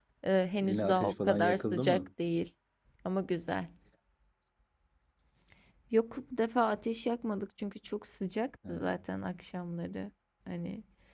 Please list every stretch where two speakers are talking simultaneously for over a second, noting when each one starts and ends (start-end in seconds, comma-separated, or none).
0.6-2.0